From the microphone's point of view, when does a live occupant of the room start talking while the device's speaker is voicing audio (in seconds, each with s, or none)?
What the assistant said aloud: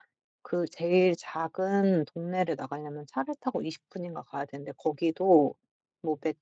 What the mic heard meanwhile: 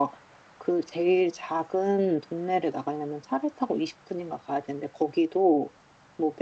none